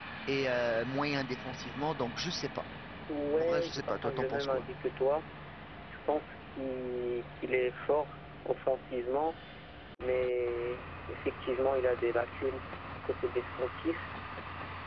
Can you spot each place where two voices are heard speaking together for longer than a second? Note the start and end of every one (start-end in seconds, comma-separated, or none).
3.4-4.6